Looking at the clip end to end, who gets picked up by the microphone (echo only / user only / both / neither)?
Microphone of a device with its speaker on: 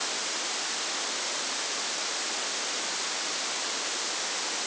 neither